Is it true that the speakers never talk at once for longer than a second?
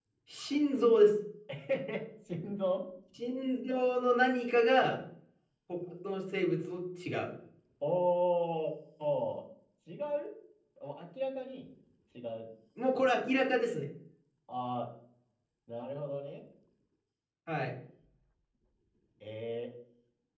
Yes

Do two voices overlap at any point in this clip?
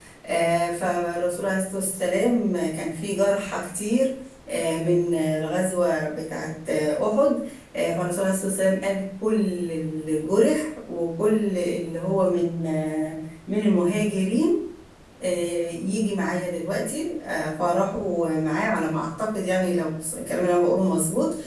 No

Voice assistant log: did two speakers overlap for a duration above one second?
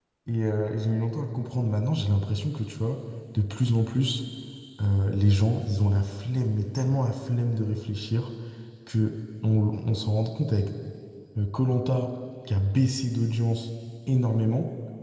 No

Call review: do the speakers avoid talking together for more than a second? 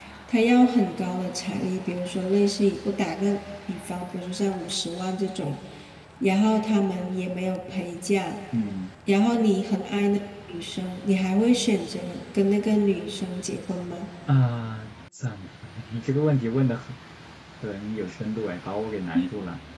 Yes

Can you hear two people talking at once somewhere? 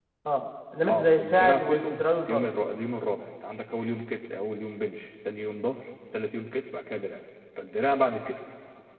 Yes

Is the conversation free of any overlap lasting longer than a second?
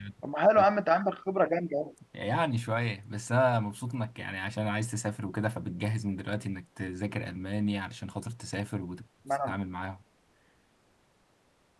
Yes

